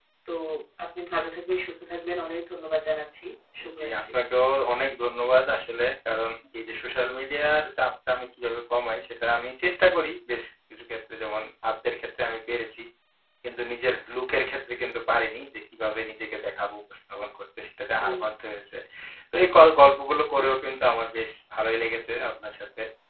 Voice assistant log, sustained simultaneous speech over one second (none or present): none